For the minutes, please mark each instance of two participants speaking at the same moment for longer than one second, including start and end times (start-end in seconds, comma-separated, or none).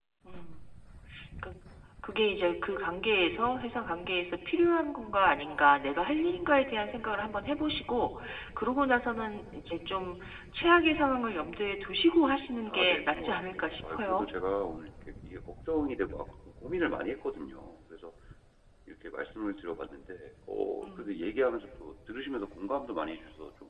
12.7-14.3